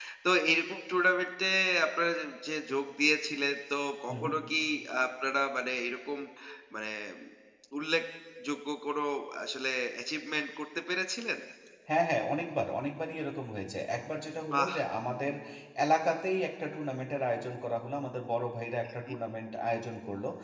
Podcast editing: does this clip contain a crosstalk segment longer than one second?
No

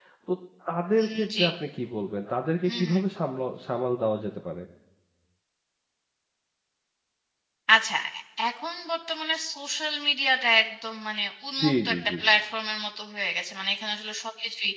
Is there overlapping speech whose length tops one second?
No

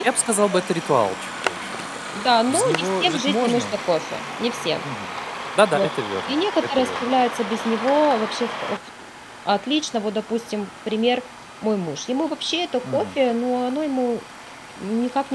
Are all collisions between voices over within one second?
No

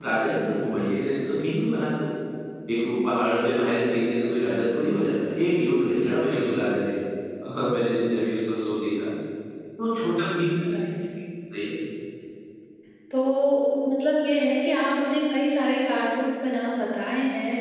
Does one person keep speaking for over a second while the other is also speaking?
No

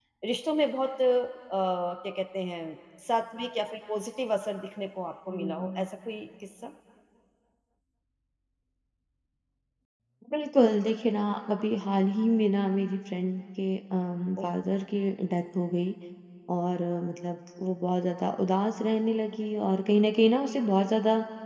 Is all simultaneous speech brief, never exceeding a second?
Yes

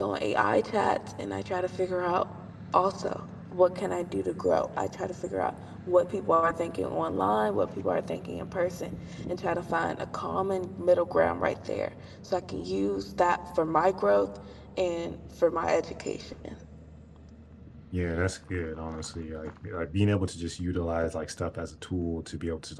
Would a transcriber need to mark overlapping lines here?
No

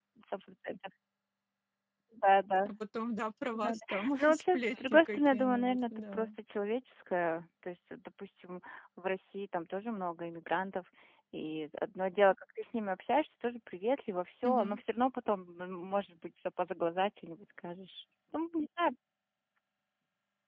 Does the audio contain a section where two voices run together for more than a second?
Yes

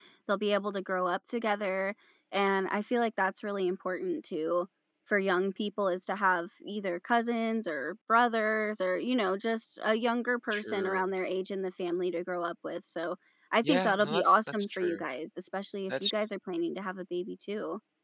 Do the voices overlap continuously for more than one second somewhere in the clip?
Yes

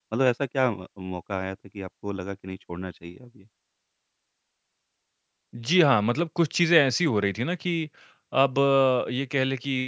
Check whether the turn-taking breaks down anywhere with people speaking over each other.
No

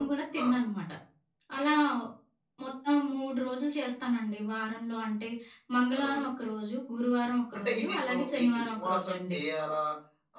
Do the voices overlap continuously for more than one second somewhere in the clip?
Yes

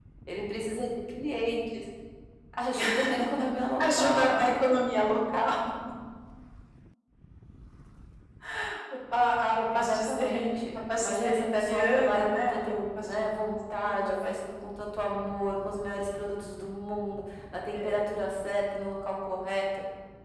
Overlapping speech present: Yes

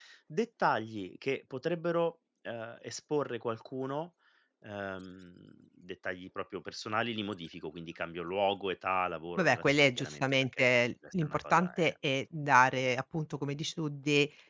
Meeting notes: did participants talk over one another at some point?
Yes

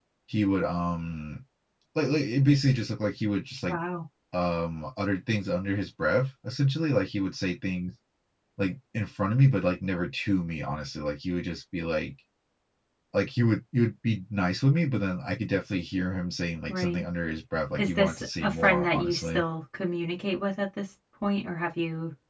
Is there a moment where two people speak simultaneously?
Yes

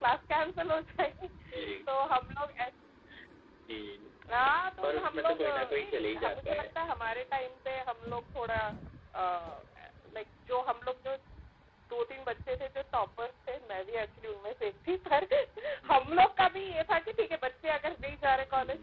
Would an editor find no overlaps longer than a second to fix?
No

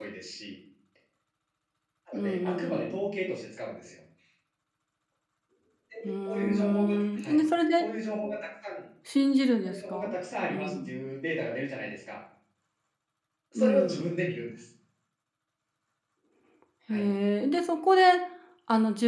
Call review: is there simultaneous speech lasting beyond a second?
Yes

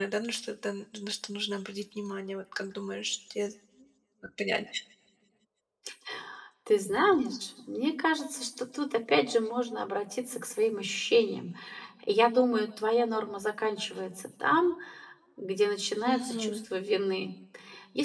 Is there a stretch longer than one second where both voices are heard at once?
No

